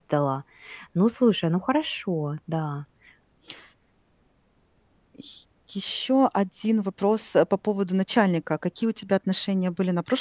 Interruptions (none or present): none